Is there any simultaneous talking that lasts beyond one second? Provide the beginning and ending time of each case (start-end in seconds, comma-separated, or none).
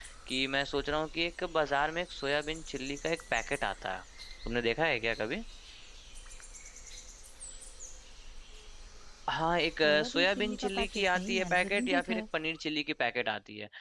9.8-12.2